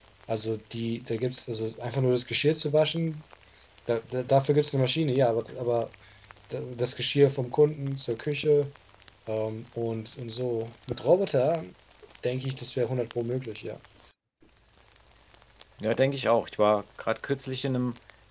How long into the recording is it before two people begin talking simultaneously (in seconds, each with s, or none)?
none